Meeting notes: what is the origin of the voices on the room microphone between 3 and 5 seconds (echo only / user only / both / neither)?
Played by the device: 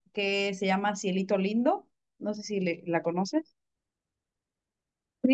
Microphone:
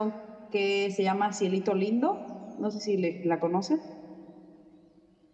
echo only